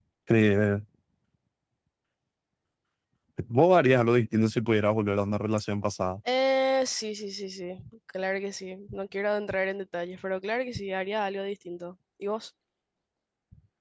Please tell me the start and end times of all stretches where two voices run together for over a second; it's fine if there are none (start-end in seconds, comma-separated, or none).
none